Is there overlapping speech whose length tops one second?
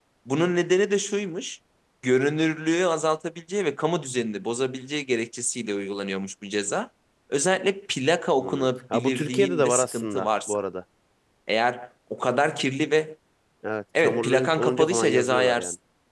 Yes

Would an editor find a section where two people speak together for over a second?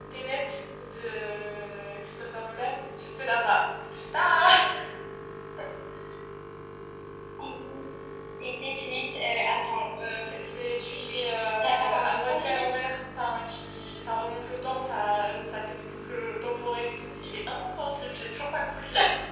Yes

